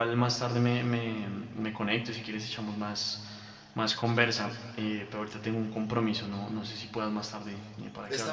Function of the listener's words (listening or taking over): taking over